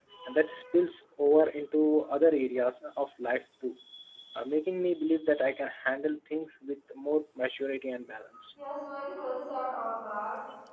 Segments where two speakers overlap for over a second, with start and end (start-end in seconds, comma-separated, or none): none